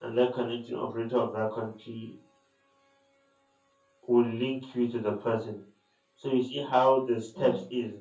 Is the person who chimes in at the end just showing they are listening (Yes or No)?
Yes